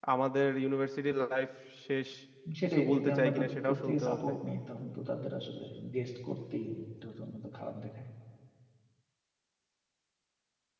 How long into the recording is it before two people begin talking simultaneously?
2.6 s

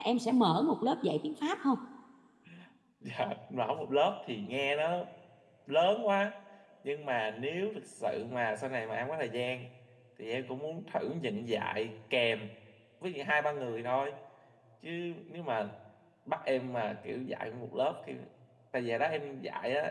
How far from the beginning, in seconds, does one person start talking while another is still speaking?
none

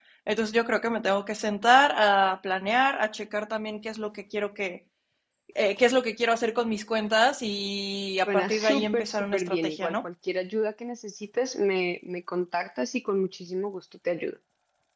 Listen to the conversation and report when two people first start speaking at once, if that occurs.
8.3 s

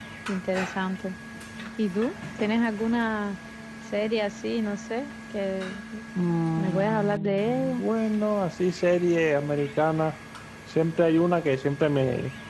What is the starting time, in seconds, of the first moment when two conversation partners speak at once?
6.6 s

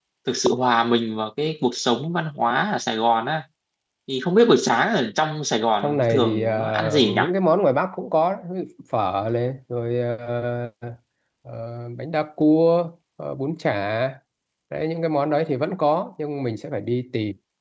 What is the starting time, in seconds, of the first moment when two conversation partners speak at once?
5.8 s

